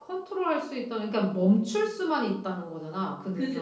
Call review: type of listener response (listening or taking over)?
taking over